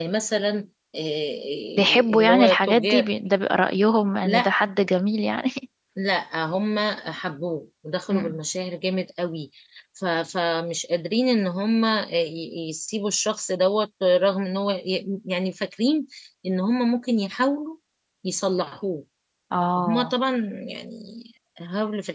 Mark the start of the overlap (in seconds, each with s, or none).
1.8 s